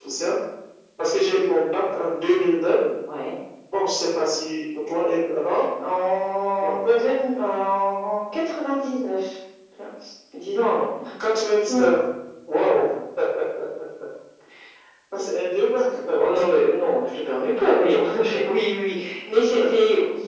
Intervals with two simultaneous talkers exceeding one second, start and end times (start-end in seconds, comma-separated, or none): none